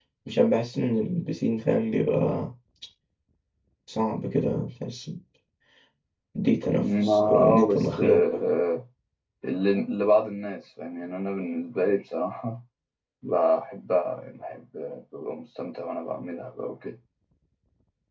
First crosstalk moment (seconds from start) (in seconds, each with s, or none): 6.7 s